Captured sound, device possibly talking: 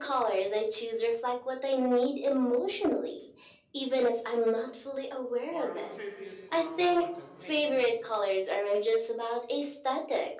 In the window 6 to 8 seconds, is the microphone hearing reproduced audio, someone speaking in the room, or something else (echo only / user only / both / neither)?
both